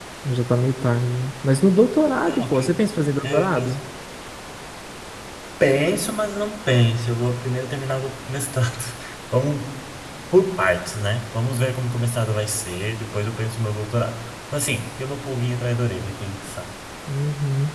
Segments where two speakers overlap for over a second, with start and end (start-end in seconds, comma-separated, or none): none